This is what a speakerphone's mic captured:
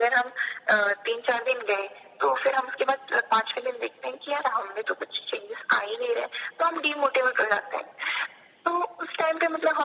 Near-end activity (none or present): none